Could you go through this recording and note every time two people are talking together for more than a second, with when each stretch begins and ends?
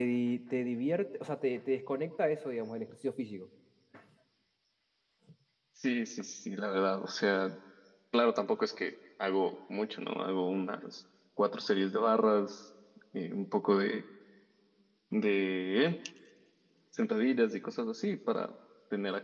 none

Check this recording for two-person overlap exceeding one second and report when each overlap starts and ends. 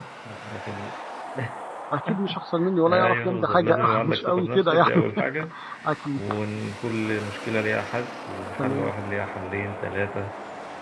2.9-5.0

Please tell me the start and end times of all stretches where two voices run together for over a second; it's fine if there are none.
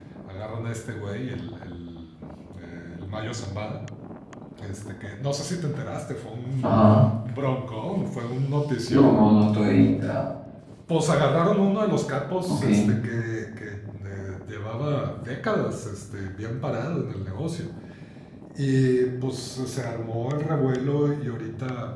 none

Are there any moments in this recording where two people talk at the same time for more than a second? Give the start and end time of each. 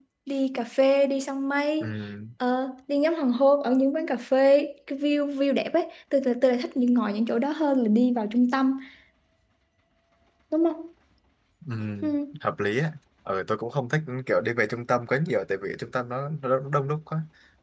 none

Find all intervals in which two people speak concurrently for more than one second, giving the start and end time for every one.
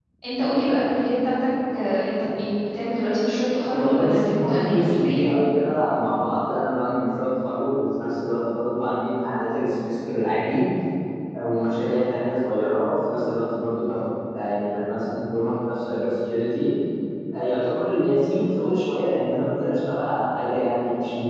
3.7-5.2

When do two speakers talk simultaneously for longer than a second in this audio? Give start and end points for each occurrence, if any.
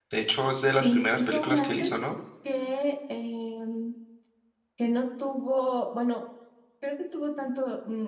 0.8-2.0

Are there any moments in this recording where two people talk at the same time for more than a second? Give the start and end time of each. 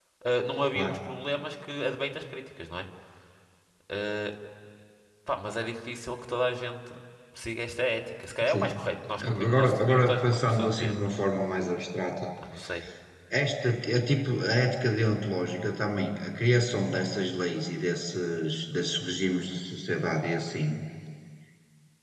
9.5-11.2

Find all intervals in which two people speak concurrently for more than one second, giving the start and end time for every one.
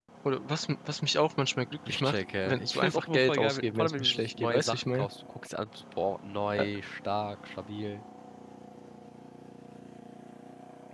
1.9-5.1

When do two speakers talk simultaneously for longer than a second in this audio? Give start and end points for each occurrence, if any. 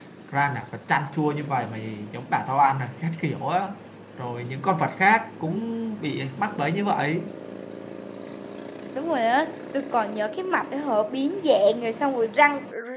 none

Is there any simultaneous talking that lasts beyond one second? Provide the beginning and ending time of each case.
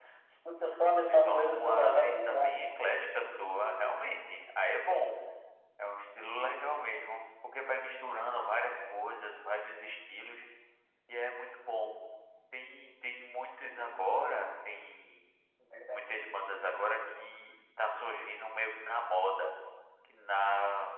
1.1-2.6

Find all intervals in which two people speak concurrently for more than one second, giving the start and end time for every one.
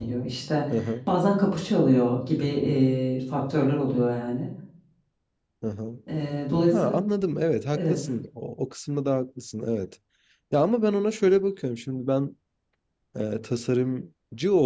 none

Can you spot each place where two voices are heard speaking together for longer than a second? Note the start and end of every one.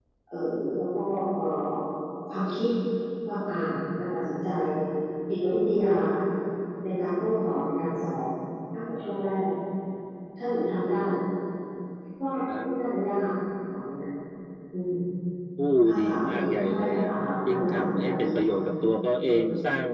15.8-18.5

